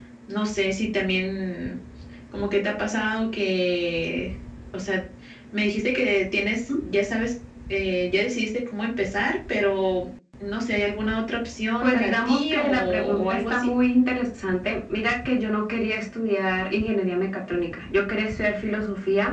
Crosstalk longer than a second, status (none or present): present